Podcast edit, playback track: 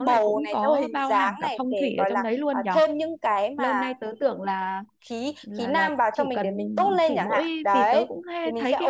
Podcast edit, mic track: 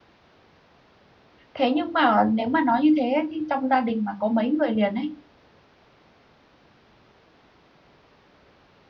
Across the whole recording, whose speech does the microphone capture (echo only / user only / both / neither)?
user only